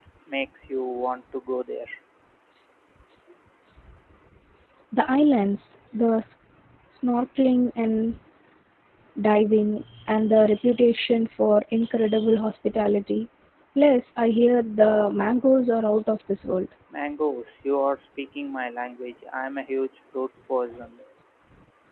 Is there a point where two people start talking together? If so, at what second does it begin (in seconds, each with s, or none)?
none